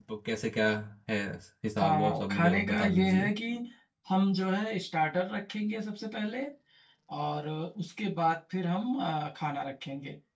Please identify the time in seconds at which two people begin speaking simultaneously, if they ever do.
2 s

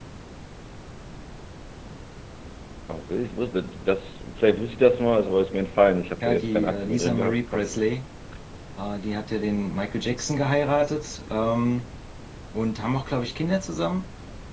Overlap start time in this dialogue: 6 s

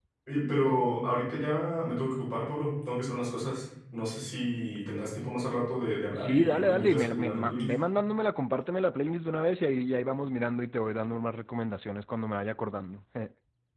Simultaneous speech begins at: 6 s

